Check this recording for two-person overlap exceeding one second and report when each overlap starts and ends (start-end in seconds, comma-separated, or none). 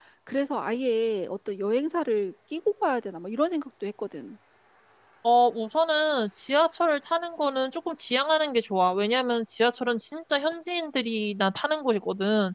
none